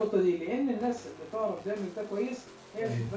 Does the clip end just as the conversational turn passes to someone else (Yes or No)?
No